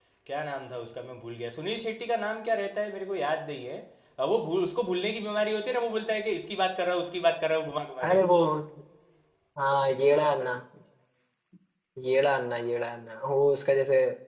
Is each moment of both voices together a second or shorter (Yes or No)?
Yes